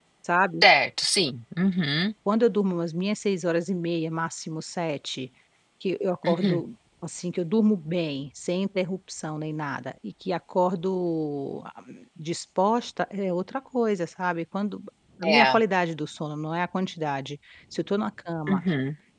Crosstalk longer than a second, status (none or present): none